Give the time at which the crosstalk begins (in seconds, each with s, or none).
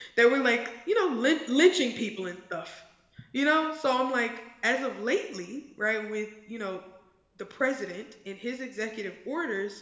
none